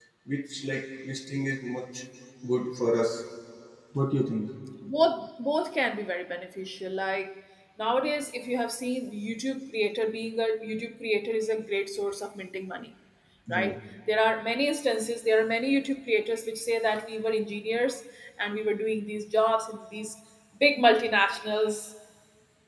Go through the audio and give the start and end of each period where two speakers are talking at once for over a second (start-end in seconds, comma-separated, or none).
none